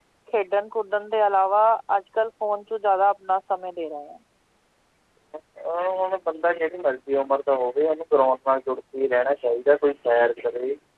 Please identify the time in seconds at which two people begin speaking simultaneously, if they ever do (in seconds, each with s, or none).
none